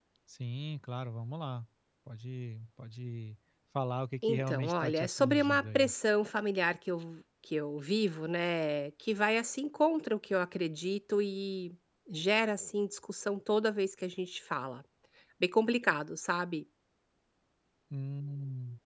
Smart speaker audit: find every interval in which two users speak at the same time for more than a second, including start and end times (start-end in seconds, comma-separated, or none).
4.3-5.9